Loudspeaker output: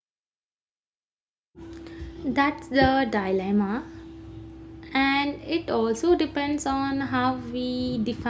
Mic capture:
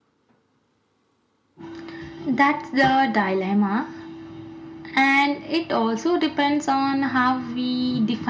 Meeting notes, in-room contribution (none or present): none